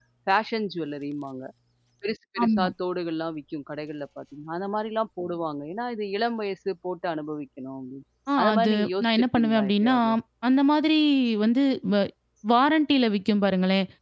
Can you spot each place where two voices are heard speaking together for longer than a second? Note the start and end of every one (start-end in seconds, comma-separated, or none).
8.4-9.9